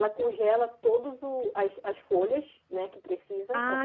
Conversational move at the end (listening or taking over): taking over